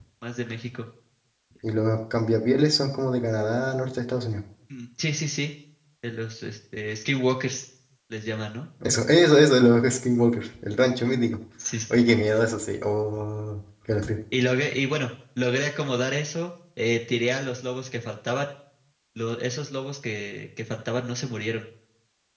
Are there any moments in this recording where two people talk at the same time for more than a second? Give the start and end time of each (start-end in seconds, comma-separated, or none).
none